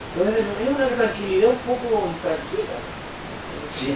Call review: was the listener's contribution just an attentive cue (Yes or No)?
No